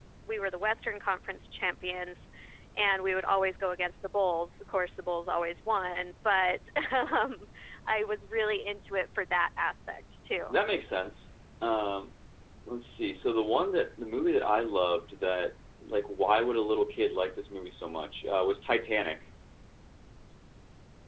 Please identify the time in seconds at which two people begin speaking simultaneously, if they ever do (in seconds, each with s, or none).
none